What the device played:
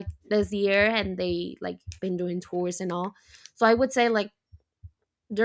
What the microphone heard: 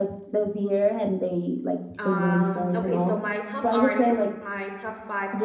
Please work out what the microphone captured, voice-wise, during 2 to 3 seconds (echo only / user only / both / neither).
both